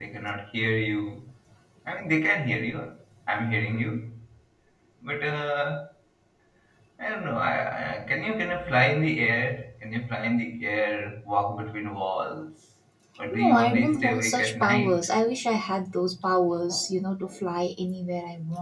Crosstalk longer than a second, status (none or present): present